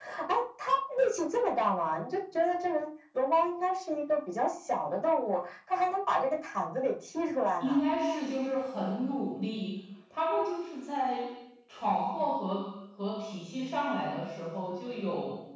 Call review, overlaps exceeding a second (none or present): none